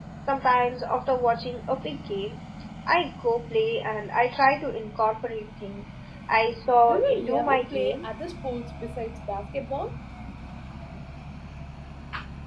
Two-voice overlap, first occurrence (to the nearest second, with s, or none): 7 s